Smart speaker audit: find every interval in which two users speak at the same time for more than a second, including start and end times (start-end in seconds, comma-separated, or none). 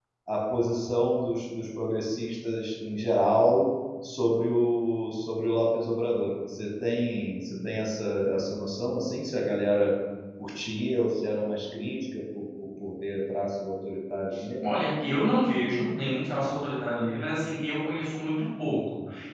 none